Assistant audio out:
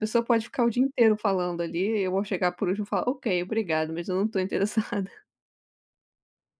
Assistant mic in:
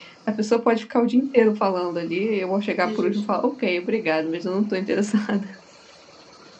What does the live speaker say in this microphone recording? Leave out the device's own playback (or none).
De ges